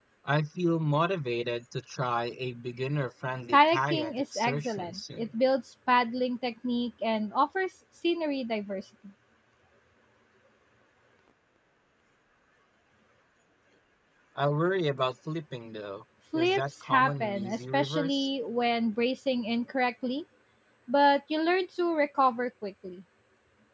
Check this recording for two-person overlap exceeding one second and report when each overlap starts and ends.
3.5-5.3, 16.4-18.3

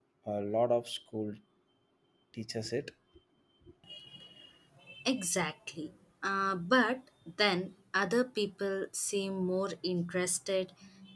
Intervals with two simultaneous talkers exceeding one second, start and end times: none

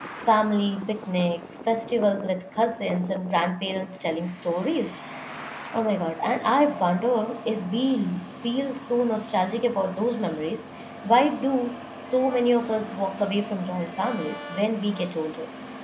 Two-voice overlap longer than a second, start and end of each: none

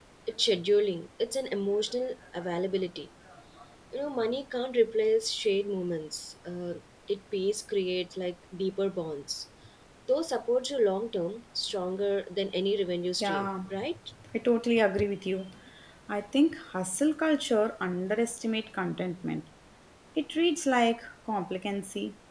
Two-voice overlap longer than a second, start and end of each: none

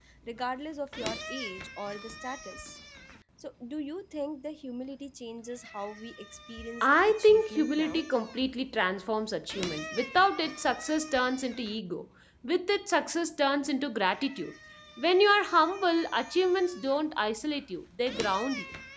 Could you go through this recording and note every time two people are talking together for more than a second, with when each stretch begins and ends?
6.8-8.1

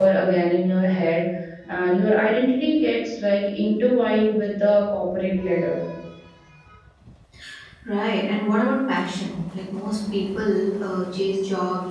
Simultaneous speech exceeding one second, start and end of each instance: none

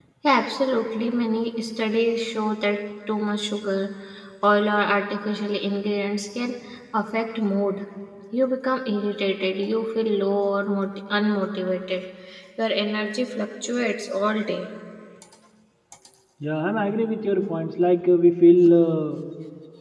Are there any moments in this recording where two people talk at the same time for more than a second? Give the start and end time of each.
none

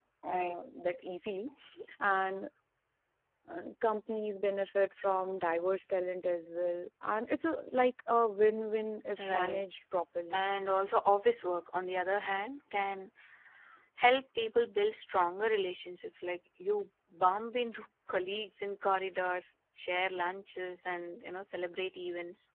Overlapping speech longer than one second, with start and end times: none

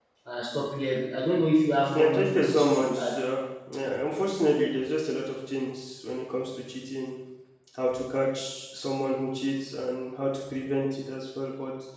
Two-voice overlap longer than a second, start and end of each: 1.9-3.2

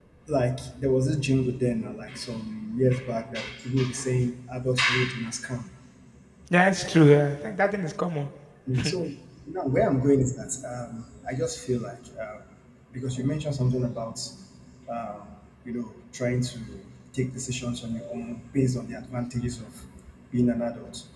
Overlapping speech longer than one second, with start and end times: none

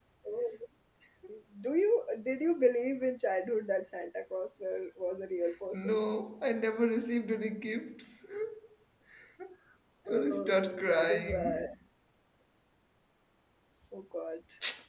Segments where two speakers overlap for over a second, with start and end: 10.1-11.7

